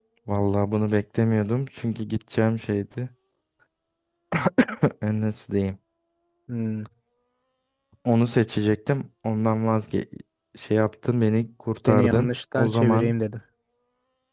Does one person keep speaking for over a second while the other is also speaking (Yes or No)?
Yes